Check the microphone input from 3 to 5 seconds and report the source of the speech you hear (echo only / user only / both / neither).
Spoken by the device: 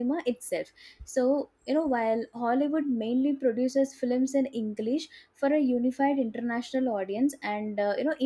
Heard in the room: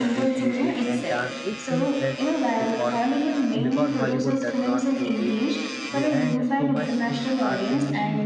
both